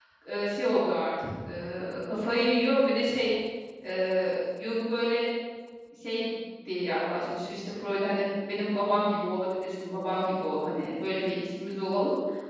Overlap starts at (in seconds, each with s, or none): none